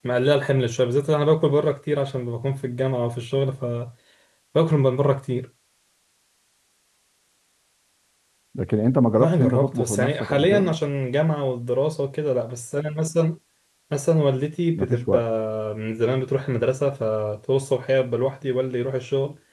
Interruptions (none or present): present